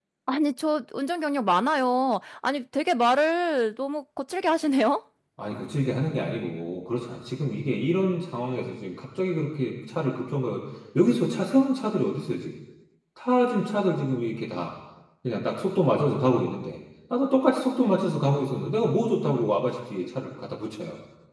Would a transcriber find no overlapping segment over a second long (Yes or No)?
Yes